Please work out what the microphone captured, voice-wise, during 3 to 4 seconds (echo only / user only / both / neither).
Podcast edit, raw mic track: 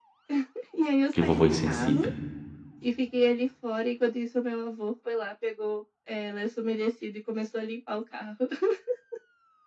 echo only